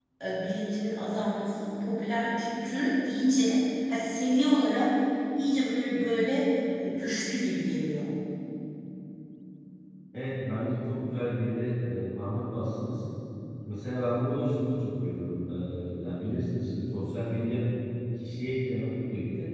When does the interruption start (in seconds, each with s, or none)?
none